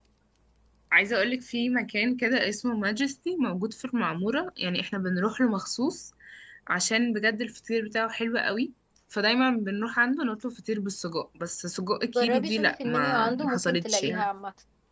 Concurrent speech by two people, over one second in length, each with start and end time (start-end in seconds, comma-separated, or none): 12.2-14.3